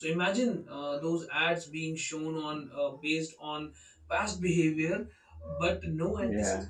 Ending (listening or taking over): listening